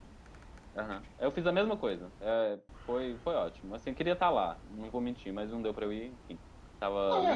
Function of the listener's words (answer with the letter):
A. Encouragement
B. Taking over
B